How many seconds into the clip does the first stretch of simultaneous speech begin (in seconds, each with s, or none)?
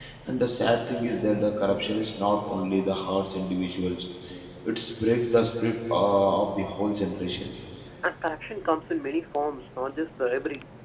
none